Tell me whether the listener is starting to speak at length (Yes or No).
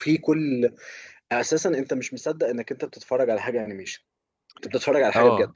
Yes